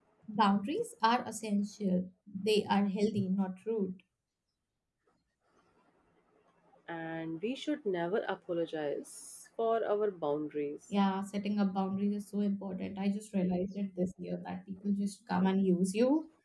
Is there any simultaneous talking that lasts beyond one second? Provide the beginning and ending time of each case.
none

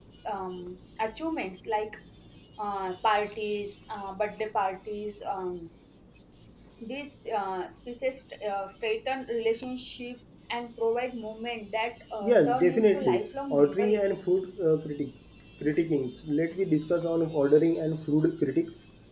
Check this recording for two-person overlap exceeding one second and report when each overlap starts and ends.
12.2-14.2

